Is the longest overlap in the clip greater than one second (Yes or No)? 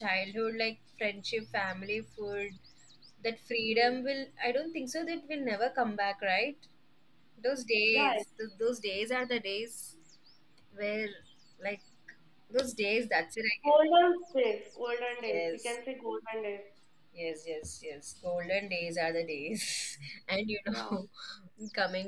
No